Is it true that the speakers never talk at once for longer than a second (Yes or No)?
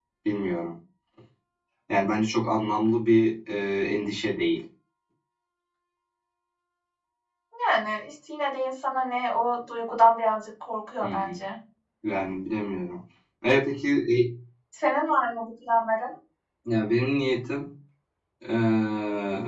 Yes